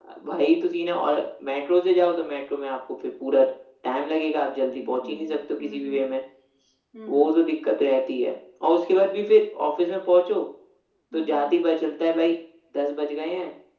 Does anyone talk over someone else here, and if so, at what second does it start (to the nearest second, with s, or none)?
5 s